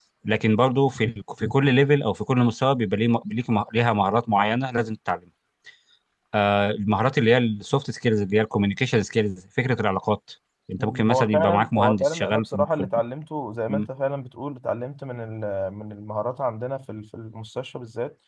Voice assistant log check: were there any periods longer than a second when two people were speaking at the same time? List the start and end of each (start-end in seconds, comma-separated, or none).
10.8-13.0